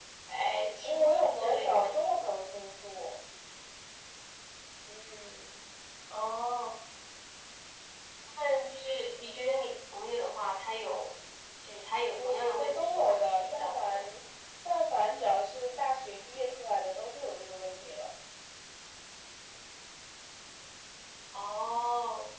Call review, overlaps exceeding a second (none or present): present